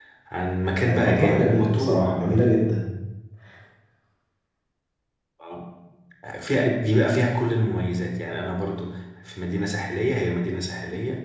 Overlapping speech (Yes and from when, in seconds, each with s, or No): Yes, from 0.8 s